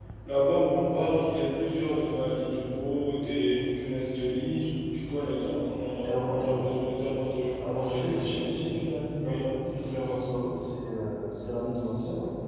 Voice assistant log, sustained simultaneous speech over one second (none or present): present